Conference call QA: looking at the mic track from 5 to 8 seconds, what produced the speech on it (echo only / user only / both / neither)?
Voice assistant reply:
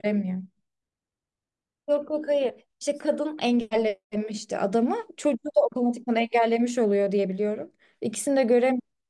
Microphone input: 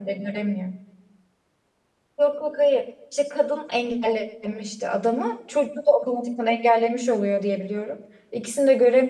echo only